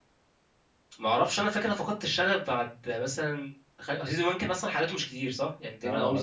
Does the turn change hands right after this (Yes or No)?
Yes